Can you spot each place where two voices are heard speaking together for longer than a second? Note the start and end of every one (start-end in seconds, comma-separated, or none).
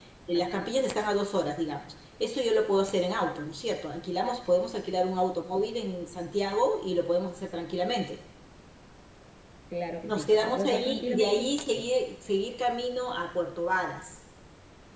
10.1-11.4